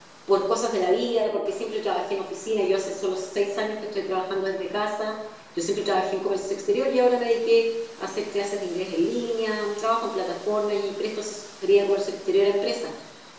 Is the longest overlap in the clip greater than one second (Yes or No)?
No